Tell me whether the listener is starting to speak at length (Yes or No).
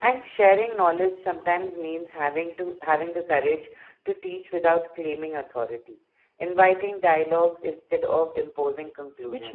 Yes